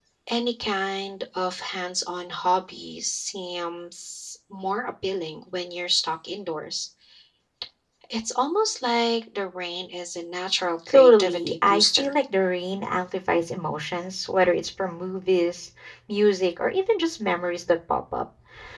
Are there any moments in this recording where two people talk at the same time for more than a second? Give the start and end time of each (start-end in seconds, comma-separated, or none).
10.9-12.1